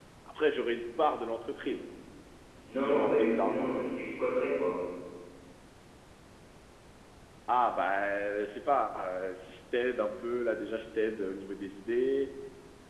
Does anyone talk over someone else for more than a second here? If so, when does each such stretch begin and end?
2.6-3.9

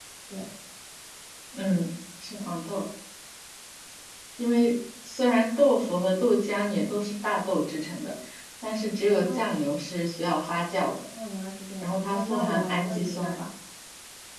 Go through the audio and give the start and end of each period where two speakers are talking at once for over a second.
11.8-13.4

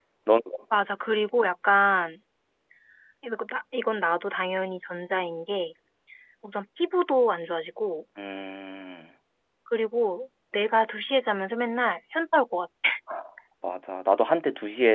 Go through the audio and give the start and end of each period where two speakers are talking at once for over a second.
none

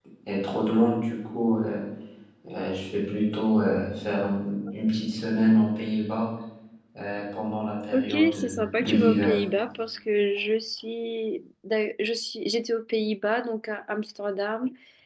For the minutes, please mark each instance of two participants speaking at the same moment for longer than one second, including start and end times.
7.9-9.3

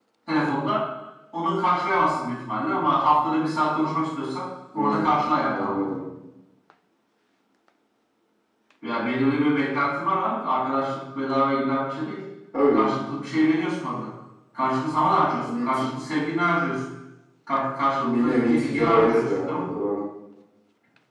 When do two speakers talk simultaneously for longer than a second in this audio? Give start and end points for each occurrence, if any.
4.7-6.0, 18.0-19.6

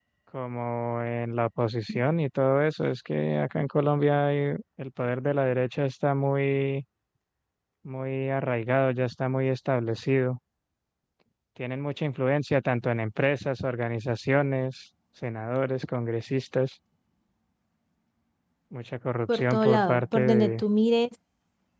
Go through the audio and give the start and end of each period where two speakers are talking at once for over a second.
19.3-20.6

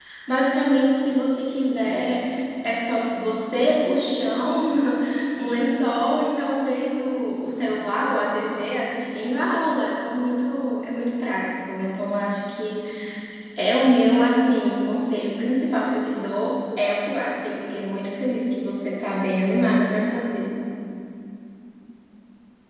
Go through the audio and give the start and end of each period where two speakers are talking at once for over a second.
none

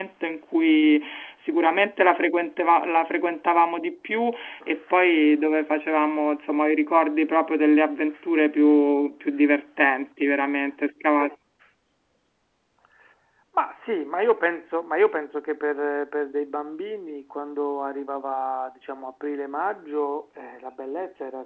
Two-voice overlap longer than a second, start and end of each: none

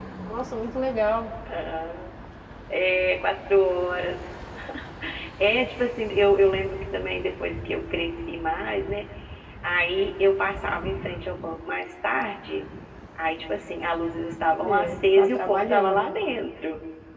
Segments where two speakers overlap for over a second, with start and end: 14.6-16.1

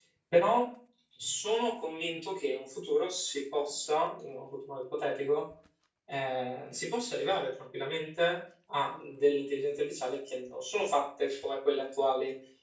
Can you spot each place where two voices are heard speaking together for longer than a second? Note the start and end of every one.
none

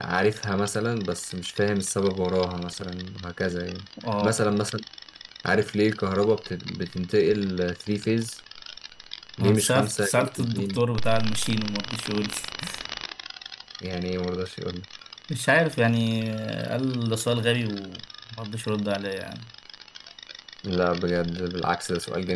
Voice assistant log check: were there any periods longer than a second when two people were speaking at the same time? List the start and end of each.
9.4-10.8

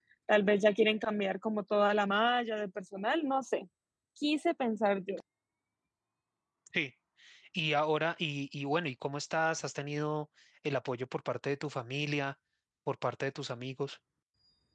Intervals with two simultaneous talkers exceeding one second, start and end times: none

